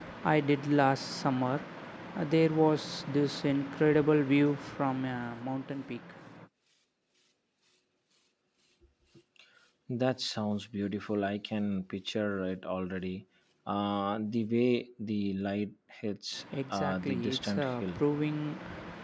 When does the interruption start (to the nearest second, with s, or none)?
17 s